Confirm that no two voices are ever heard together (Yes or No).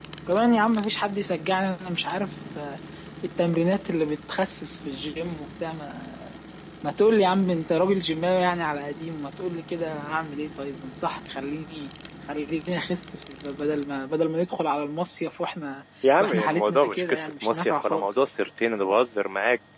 No